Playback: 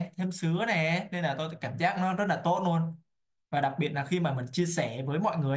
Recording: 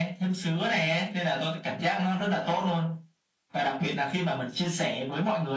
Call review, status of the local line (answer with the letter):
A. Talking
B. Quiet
B